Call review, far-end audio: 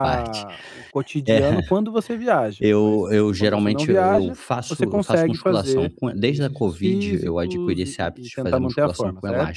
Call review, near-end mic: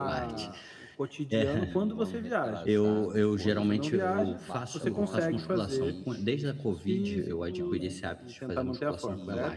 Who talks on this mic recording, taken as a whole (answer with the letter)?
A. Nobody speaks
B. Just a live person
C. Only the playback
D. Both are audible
D